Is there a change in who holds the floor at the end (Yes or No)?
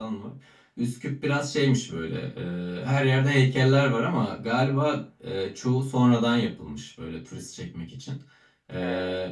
No